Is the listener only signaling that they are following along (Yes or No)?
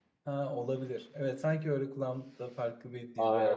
No